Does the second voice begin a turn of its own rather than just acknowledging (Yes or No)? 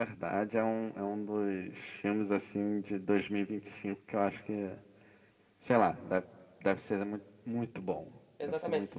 Yes